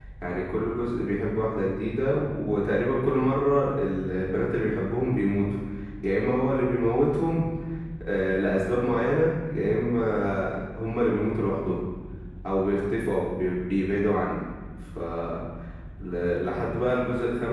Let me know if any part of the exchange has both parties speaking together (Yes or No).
No